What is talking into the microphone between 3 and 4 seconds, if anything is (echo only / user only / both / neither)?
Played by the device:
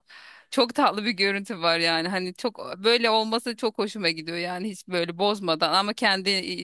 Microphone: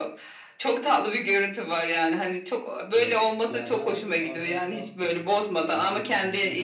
both